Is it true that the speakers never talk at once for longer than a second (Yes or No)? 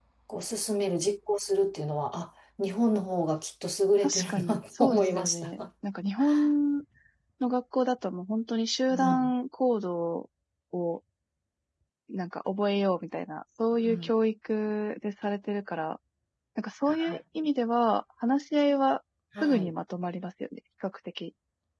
No